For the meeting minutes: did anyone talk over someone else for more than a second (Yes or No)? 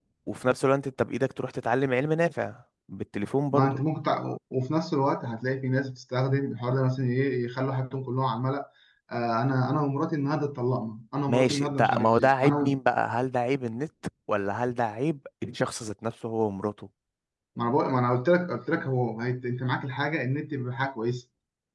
Yes